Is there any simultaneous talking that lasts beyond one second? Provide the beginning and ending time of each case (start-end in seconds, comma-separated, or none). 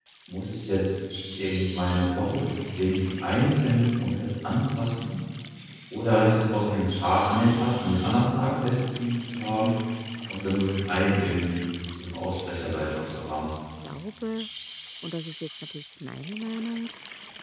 none